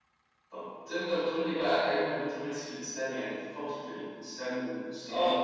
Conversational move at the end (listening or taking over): taking over